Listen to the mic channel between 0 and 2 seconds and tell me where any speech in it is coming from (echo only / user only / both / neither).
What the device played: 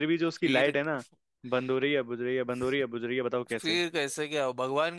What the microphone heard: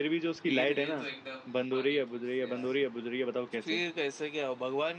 both